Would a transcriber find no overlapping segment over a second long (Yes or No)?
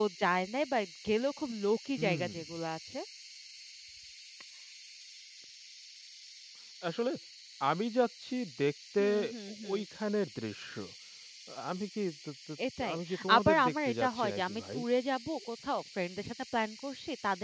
No